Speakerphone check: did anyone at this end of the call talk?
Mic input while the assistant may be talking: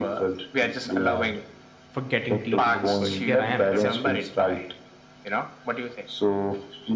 Yes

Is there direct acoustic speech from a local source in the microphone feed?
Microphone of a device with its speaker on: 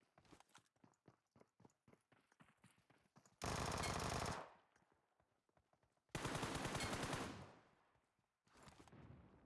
No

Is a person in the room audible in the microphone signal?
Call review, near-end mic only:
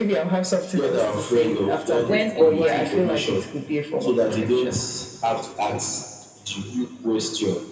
Yes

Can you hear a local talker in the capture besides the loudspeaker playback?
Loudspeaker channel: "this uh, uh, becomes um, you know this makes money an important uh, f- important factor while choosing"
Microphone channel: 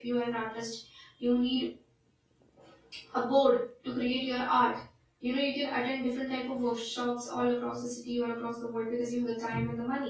Yes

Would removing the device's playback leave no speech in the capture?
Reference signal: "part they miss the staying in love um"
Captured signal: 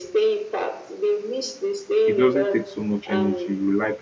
No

